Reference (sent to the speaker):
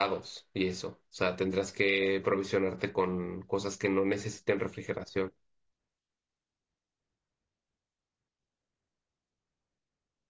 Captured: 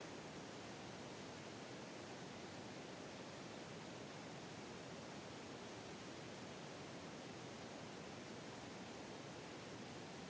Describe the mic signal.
neither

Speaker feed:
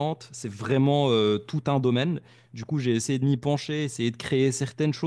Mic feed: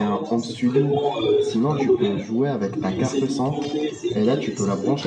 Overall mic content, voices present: both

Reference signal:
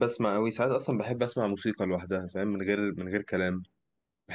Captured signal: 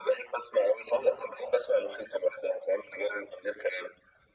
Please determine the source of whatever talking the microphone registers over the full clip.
echo only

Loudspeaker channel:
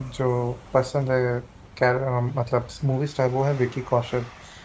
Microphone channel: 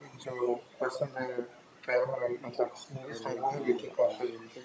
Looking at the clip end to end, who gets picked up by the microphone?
both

